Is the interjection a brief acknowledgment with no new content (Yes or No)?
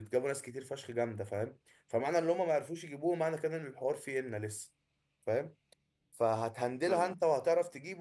Yes